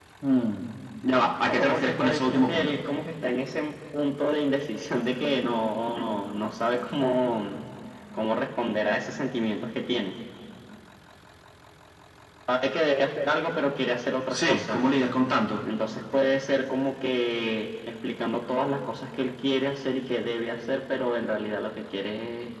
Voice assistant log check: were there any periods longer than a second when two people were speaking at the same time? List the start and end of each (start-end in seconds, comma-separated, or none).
1.5-2.8